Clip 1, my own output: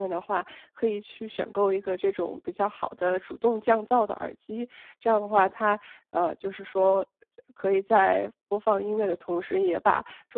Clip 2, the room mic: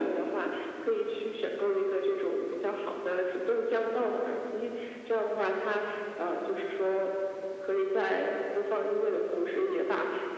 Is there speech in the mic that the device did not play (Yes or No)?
No